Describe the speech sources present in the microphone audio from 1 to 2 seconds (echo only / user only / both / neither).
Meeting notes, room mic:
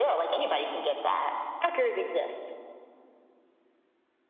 echo only